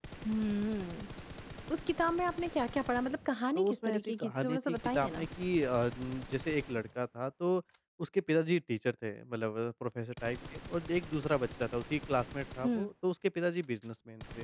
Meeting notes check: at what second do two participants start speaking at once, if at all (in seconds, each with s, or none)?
3.5 s